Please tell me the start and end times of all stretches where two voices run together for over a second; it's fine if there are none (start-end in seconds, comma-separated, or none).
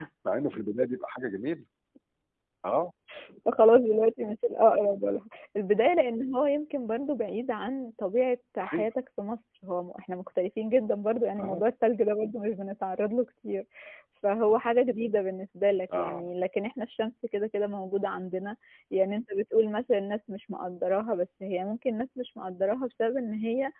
none